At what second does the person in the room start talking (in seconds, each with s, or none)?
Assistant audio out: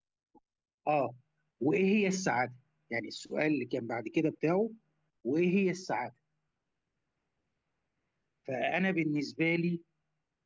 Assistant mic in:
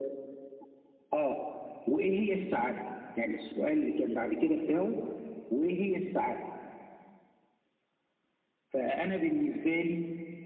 none